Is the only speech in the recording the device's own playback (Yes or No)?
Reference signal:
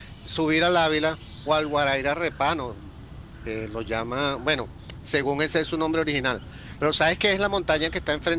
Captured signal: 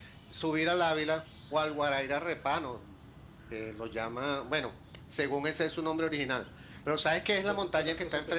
No